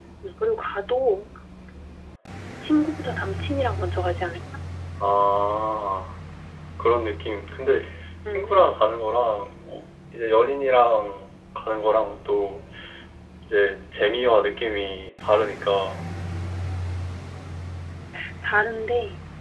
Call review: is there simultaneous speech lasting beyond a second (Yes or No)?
No